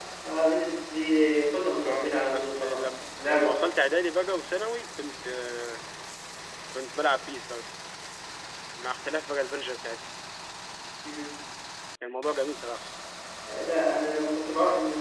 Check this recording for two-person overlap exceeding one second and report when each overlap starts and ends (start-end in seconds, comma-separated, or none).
1.9-3.6